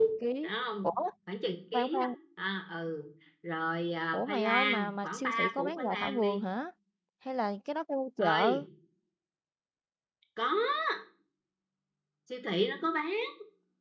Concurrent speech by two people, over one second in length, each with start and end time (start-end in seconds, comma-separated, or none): 4.1-6.4